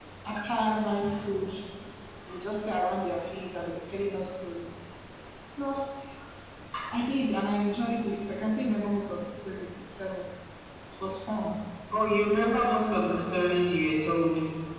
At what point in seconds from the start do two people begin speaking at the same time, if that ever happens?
none

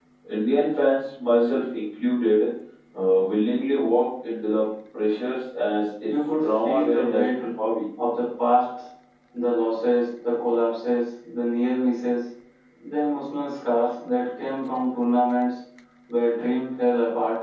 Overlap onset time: 6 s

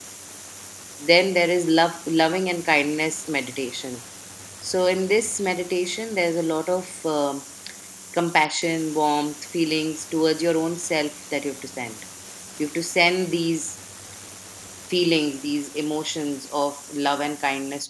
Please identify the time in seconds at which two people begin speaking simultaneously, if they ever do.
none

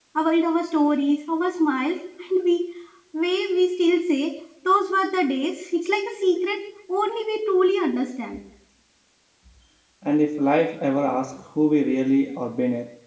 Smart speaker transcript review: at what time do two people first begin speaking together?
none

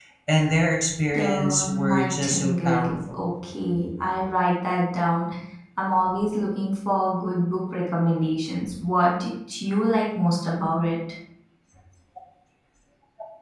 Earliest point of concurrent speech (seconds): 1 s

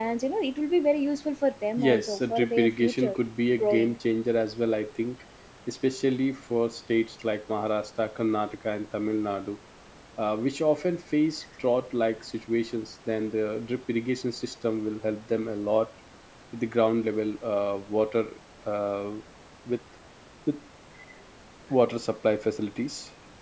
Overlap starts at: 2 s

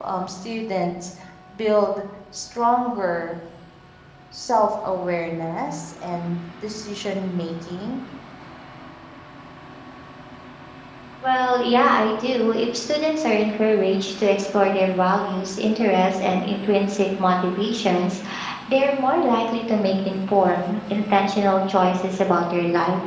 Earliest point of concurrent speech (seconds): none

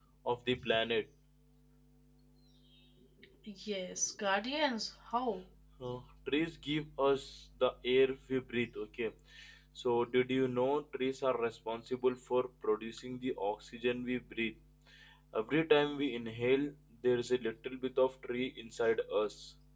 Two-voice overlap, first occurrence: none

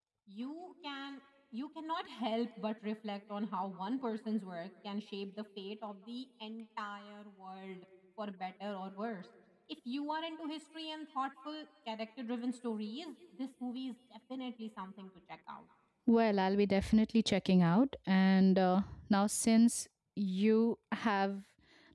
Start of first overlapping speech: none

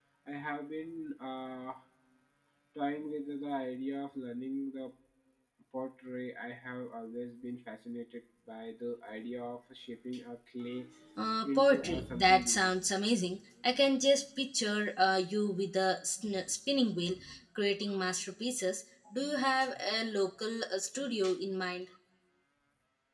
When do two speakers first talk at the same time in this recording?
11 s

